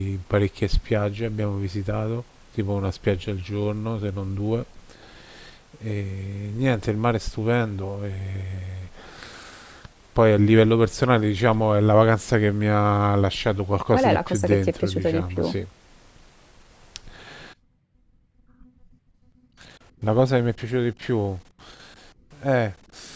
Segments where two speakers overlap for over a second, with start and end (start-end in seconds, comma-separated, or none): 13.9-15.5